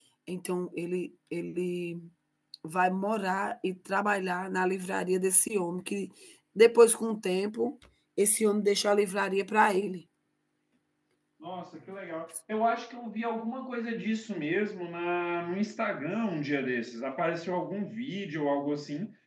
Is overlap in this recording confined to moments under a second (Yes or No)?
Yes